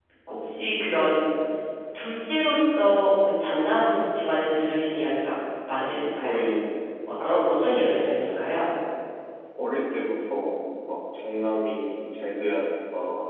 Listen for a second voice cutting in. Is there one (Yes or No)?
Yes